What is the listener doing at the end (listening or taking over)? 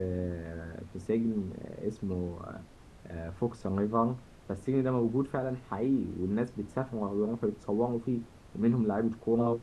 listening